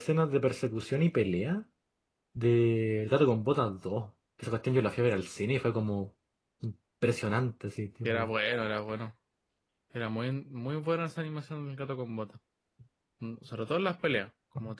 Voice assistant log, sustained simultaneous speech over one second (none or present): none